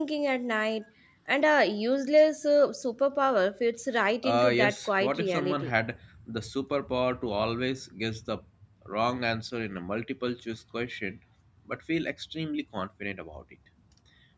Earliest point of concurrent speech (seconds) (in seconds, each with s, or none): 4.2 s